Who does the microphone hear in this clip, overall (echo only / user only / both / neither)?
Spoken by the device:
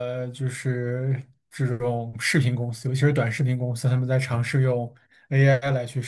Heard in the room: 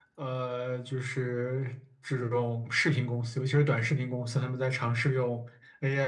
echo only